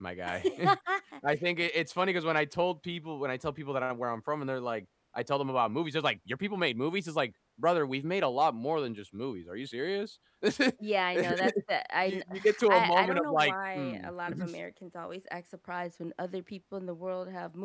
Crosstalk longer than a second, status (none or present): present